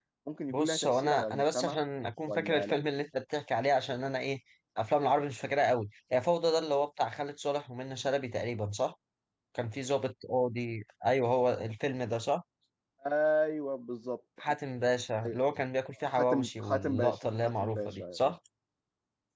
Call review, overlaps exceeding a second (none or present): present